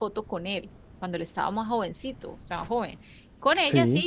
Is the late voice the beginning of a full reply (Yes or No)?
No